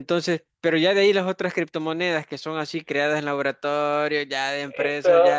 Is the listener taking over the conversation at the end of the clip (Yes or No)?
Yes